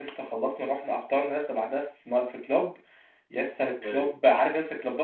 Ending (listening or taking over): listening